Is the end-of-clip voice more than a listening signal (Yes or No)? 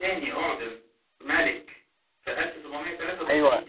Yes